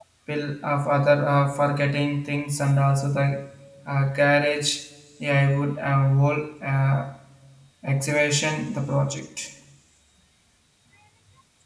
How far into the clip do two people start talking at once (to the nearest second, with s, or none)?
none